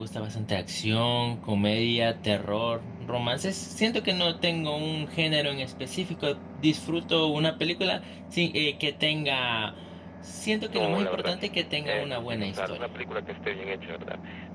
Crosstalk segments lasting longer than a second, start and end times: 10.7-12.8

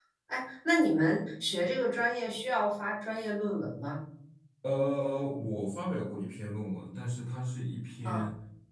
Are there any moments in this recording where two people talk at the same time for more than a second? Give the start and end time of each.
none

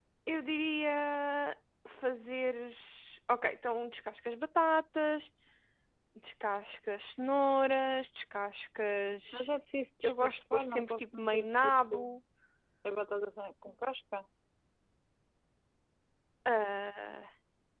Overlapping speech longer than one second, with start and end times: 10.0-12.2

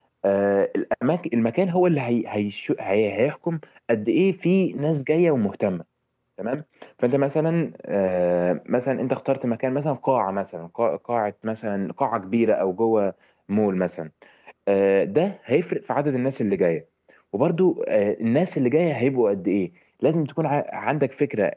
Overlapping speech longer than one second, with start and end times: none

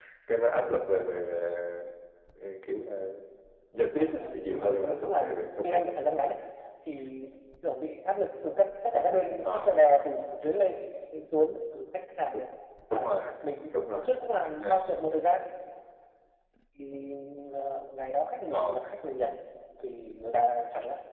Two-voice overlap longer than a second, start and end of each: 4.0-5.8

